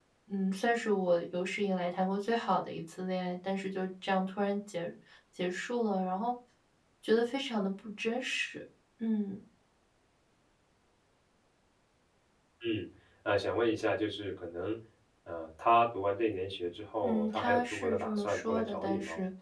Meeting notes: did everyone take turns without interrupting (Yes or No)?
No